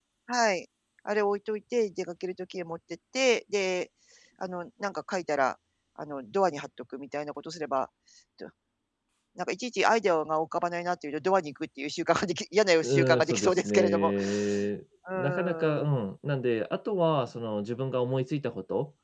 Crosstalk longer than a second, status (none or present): present